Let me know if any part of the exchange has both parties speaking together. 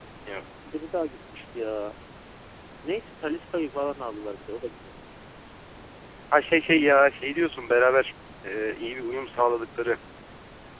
No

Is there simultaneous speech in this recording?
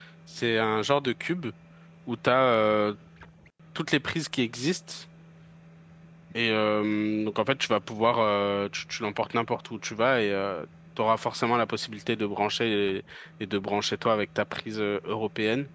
No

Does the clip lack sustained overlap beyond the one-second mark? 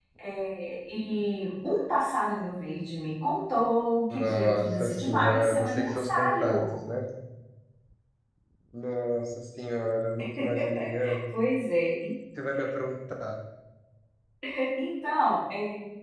No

